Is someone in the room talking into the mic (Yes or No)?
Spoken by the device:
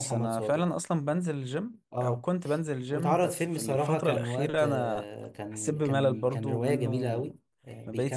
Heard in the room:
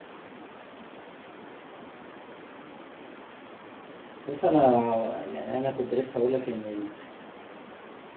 Yes